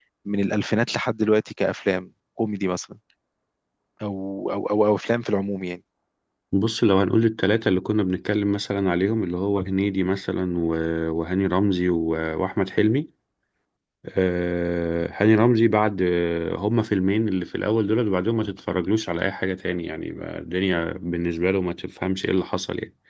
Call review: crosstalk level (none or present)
none